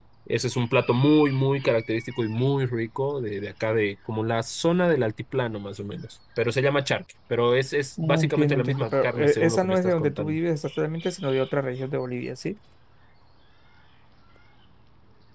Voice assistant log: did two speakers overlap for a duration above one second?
Yes, from 8.0 s

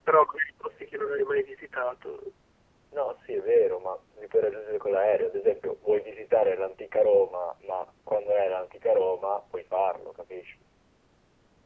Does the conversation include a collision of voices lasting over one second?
No

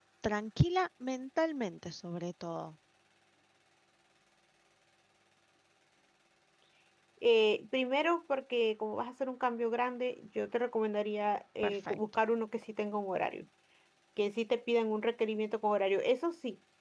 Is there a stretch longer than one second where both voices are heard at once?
No

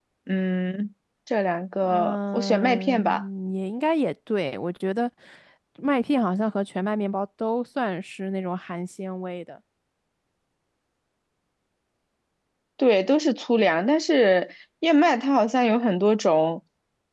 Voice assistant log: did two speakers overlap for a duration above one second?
Yes, from 1.8 s

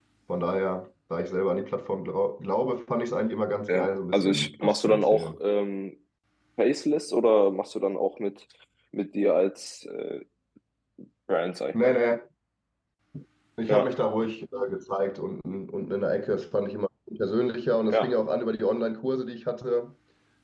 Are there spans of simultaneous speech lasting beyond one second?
Yes, from 3.7 s

